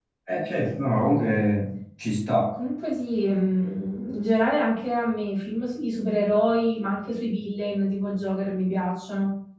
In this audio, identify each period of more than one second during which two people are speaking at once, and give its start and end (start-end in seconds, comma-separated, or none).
none